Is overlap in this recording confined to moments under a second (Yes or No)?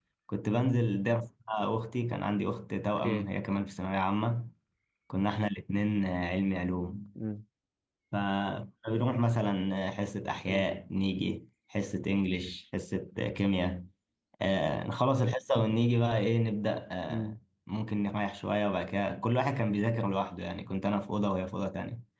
Yes